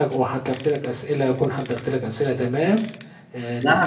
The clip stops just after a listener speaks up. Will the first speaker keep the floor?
No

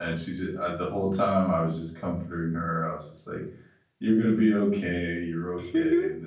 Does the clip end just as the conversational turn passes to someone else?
No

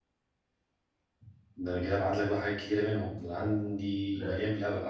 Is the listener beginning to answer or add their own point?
No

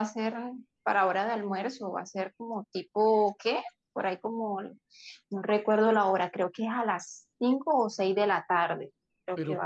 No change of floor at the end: No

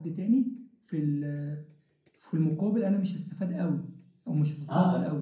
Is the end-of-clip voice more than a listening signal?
Yes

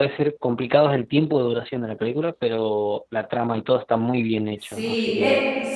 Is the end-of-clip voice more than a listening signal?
Yes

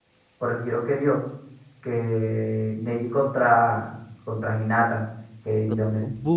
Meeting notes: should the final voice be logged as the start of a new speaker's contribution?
No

